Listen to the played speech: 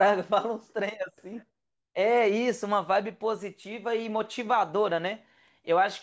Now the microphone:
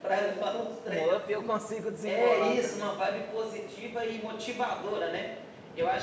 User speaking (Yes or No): Yes